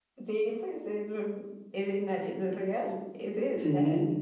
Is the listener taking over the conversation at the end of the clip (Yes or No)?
Yes